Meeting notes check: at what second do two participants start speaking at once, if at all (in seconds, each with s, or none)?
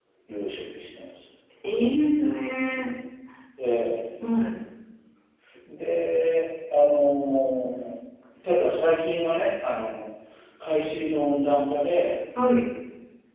none